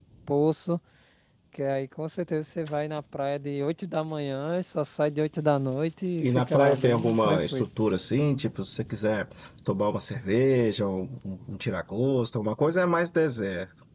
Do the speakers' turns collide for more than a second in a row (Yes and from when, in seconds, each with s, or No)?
Yes, from 6.2 s